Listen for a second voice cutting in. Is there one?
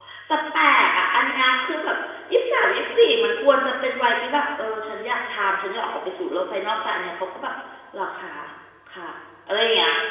No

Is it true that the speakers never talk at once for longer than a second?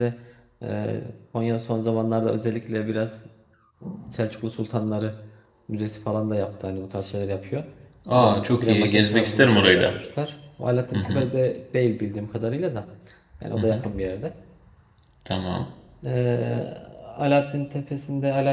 No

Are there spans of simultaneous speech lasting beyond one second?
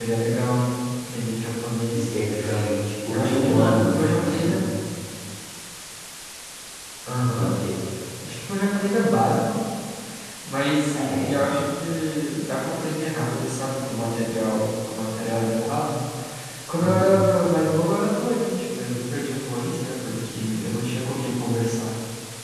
Yes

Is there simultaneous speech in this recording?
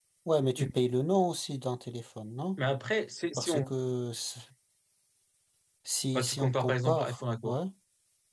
Yes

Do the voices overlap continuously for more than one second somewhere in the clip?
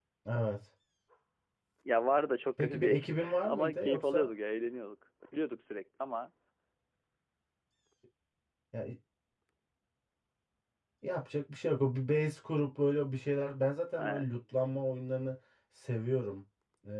Yes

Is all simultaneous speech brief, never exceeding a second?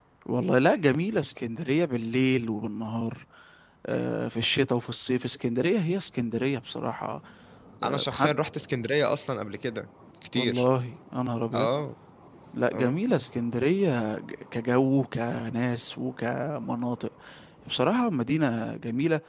Yes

